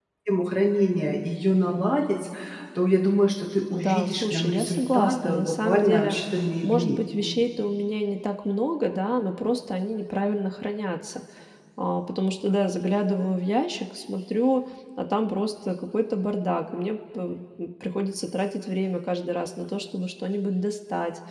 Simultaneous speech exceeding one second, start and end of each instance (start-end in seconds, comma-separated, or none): 3.7-6.2